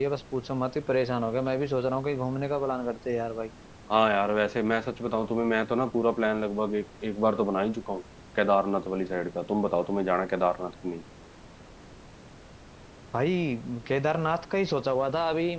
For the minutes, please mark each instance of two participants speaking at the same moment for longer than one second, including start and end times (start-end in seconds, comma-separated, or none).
none